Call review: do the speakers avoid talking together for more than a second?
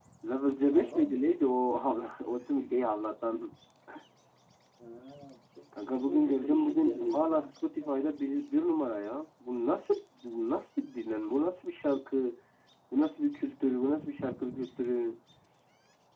No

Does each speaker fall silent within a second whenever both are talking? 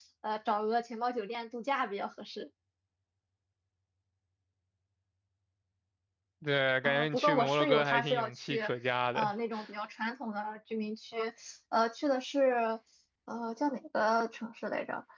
No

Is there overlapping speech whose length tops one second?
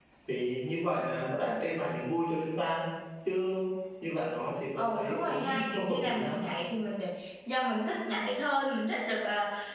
Yes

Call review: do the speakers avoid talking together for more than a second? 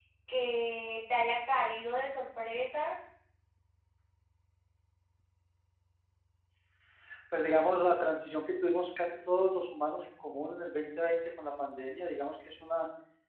Yes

